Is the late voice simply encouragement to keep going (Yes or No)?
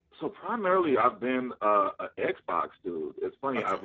Yes